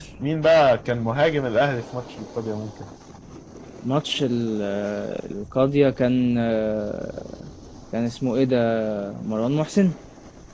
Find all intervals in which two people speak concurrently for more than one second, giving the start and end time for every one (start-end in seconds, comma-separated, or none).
none